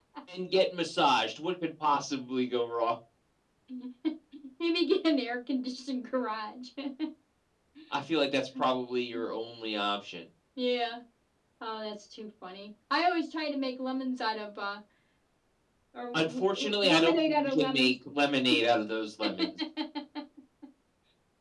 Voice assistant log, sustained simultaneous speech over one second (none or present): present